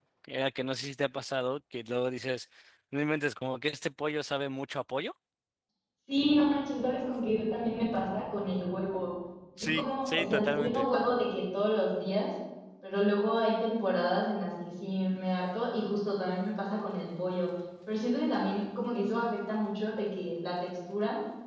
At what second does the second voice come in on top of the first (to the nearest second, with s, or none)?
10 s